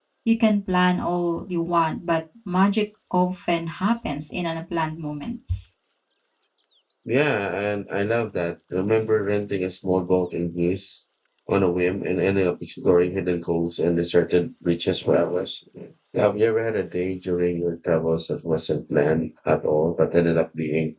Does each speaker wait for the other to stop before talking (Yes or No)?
Yes